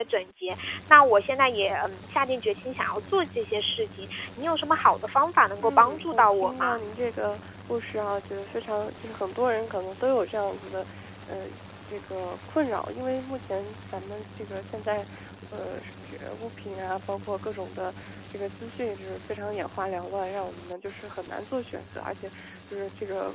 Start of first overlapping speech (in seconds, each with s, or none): 5.6 s